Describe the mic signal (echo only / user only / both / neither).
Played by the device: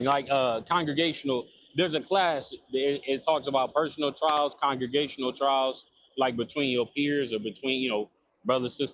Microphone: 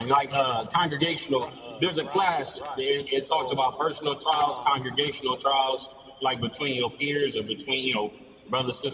both